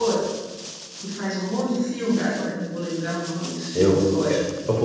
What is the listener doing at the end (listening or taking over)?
taking over